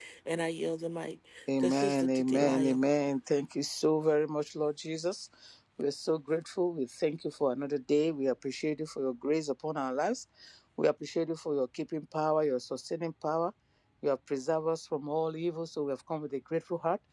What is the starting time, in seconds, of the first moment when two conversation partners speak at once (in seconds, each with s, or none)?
1.6 s